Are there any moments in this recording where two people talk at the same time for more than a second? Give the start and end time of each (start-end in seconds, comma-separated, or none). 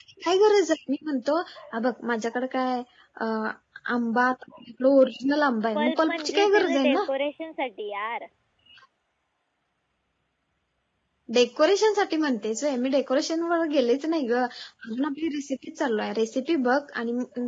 5.8-7.0